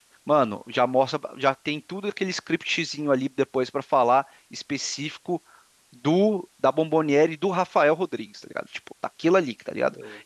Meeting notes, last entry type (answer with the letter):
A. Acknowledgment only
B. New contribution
A